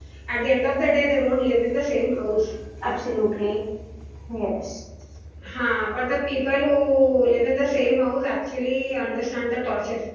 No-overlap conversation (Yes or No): Yes